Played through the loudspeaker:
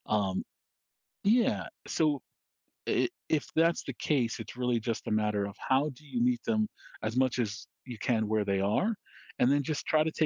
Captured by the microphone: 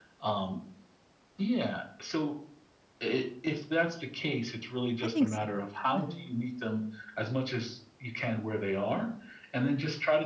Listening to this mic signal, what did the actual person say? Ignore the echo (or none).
I think so. Mhm,